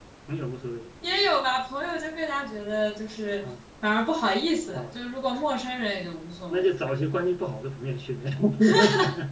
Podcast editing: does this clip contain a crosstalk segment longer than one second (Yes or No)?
No